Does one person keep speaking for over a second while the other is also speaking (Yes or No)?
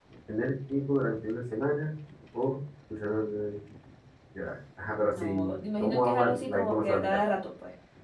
Yes